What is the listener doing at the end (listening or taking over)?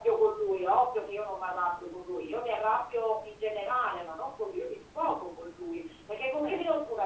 listening